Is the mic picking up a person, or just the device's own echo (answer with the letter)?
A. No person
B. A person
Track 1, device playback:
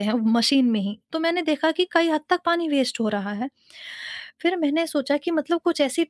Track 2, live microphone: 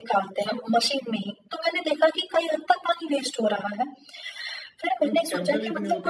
B